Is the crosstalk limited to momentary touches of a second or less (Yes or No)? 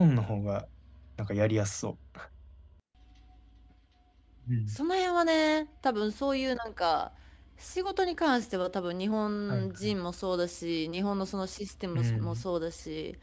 Yes